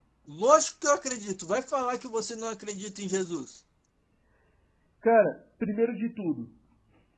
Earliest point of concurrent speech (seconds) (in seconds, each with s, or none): none